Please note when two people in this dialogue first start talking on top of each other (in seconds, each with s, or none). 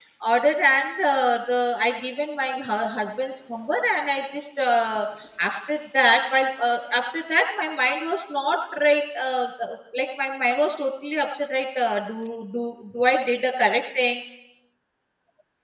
none